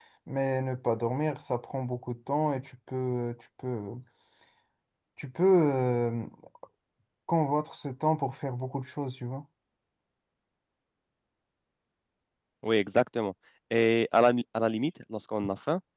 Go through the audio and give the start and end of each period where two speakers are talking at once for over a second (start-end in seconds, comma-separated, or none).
none